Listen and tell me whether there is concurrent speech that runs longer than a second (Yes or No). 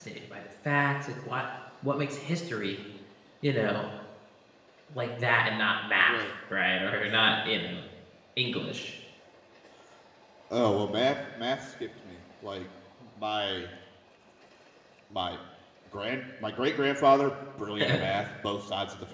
No